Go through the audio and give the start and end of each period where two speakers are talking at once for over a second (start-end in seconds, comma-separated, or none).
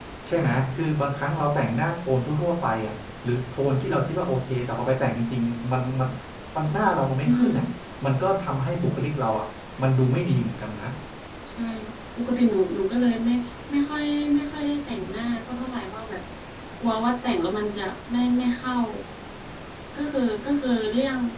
none